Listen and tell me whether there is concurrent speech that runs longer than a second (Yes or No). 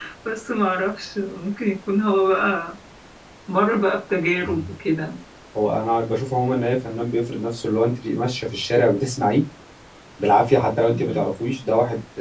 No